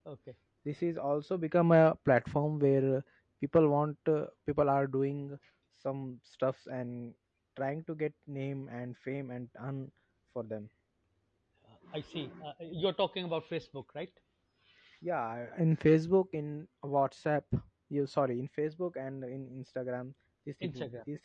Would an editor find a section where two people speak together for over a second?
No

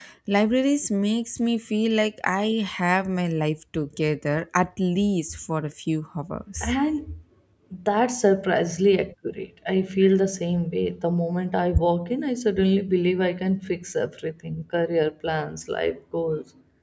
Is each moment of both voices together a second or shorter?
Yes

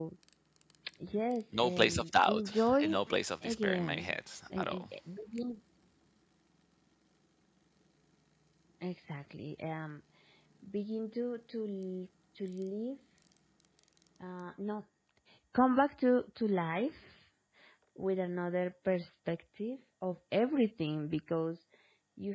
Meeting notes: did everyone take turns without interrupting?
No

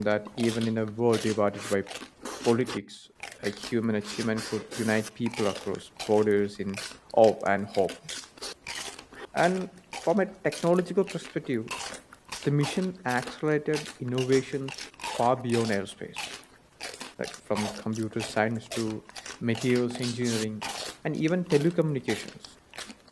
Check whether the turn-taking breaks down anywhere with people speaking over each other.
No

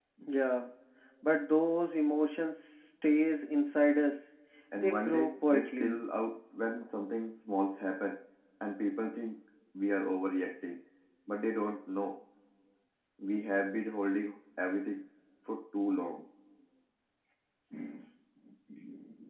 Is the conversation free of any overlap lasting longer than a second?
No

